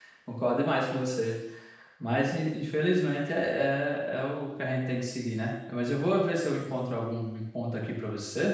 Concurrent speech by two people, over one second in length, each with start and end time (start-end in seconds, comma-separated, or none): none